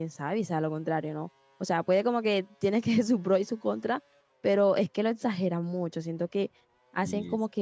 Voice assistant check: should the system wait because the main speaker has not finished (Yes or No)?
Yes